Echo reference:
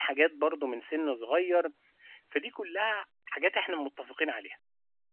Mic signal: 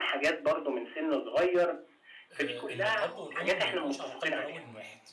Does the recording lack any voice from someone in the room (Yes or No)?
No